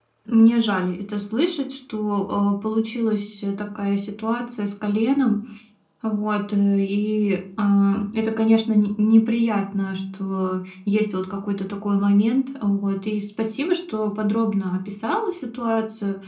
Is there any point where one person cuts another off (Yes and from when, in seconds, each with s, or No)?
No